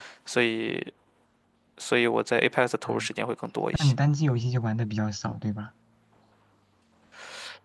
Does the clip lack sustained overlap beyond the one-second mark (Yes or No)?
Yes